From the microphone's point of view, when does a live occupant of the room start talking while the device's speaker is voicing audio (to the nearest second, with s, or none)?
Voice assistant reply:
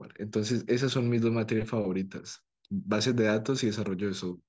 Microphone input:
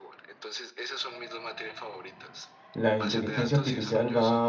3 s